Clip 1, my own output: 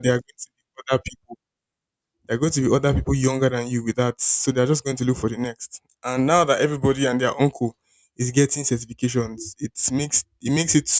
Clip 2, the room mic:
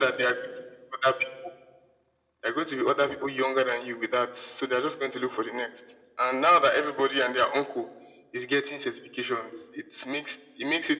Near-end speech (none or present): none